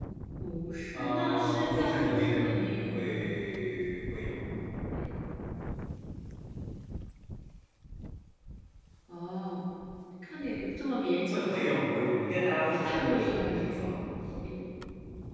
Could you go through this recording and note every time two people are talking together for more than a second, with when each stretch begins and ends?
0.9-3.3, 12.4-14.0

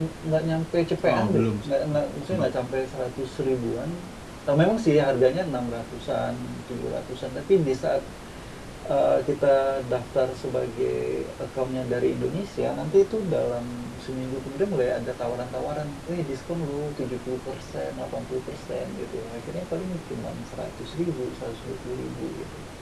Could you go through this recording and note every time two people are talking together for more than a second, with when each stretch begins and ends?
1.1-2.5

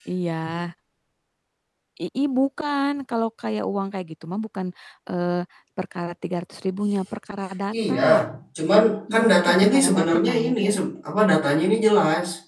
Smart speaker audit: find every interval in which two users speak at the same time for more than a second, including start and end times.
9.1-10.5

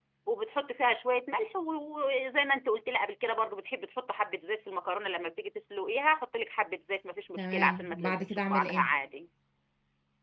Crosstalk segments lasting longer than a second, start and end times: 7.4-8.9

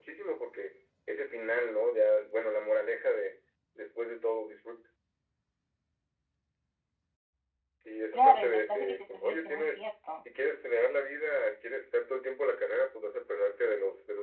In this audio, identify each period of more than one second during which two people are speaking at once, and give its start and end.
8.1-9.8

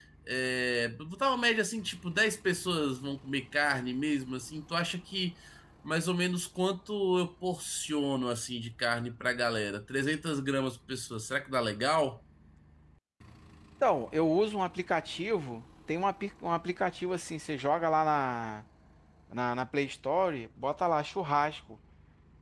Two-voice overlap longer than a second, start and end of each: none

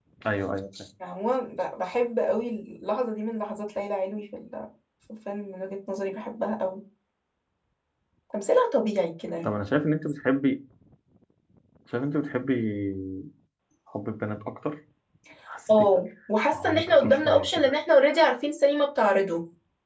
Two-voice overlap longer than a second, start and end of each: 16.5-17.7

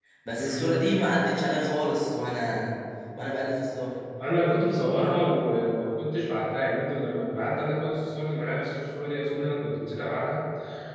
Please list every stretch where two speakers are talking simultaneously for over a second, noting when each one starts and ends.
none

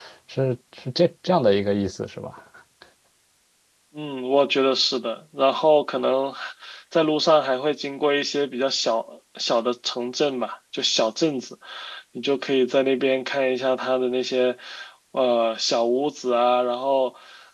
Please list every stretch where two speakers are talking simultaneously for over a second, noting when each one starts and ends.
none

